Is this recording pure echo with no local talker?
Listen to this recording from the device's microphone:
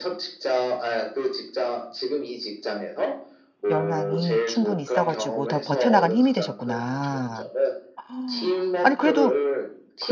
No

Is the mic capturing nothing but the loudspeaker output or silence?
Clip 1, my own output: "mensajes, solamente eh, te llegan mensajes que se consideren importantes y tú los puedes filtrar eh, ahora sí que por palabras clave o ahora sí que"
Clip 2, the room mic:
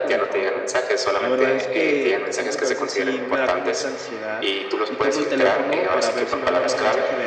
No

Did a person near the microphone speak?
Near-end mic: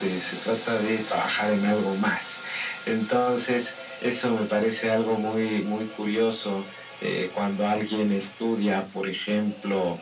No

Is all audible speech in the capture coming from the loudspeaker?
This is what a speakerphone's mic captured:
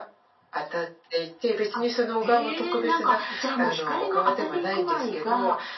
Yes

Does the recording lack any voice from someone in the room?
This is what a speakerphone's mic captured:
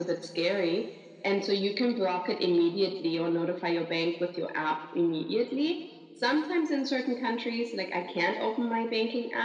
Yes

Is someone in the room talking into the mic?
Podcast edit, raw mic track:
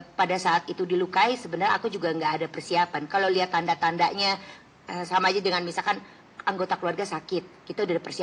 No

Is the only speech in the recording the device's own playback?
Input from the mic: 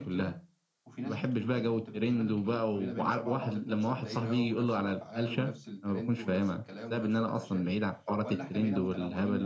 No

